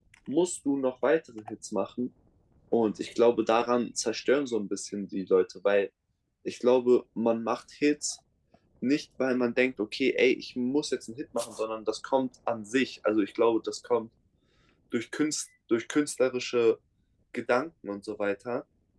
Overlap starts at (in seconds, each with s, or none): none